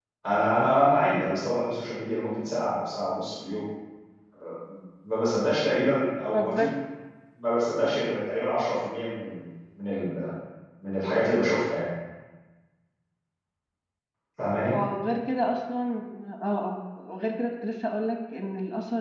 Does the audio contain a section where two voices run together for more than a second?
No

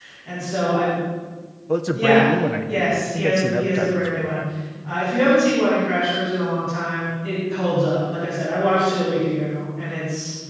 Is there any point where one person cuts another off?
Yes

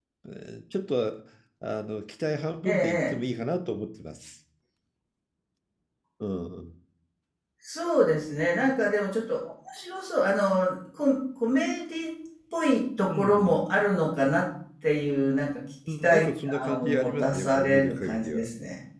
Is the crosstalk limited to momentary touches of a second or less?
No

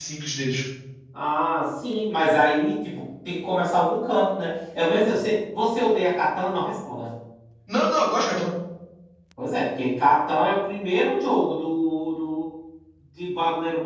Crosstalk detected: No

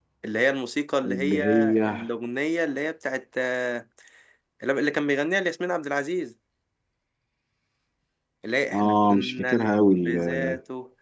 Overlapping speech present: Yes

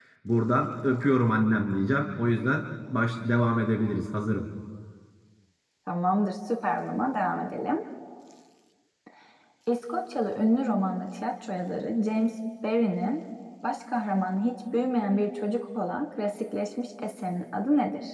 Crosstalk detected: No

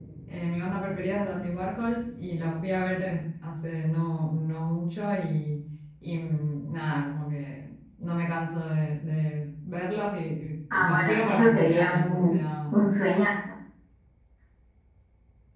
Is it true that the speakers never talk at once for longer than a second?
No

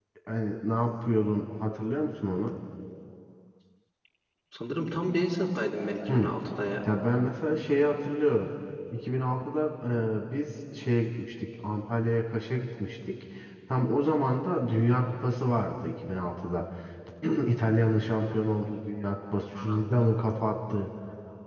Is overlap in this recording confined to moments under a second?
Yes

